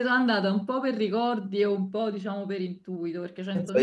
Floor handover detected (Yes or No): Yes